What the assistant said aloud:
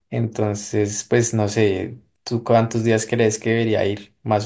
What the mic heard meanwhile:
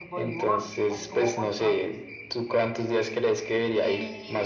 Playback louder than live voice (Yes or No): Yes